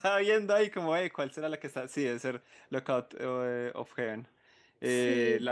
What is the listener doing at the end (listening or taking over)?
listening